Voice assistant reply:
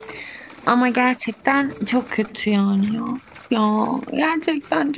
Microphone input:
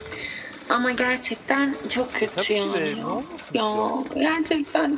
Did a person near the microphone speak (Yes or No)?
Yes